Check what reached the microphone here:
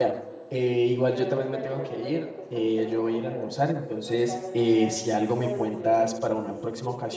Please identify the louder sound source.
user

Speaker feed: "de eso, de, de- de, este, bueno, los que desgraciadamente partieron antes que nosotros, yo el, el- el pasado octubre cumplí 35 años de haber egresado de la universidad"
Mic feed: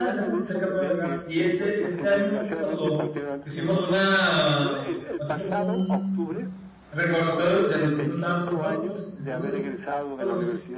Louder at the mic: user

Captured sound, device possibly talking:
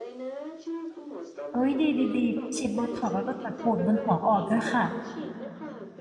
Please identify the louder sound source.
user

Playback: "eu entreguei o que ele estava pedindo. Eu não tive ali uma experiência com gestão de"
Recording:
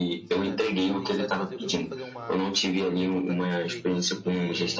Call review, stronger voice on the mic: echo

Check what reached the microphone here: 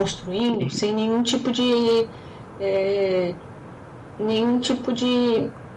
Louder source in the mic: echo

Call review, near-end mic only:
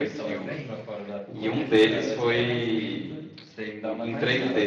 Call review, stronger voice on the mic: user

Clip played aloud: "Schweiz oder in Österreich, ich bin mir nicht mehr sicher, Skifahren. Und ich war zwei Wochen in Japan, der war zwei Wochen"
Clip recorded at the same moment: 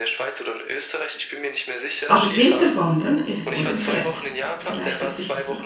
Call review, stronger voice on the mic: user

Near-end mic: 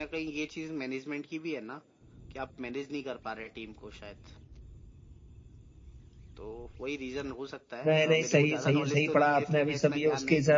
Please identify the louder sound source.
user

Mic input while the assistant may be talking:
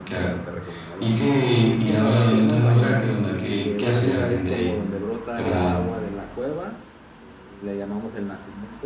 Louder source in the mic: echo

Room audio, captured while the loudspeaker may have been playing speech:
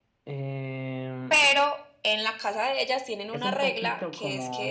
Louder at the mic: user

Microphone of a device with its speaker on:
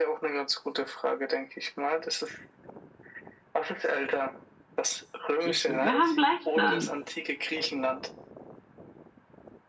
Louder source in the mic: user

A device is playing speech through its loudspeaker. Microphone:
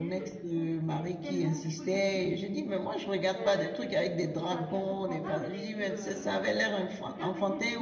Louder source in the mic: user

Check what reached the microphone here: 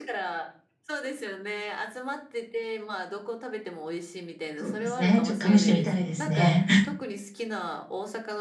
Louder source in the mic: user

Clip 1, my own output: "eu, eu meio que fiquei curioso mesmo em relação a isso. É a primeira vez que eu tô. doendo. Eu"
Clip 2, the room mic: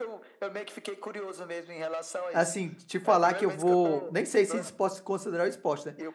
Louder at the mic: user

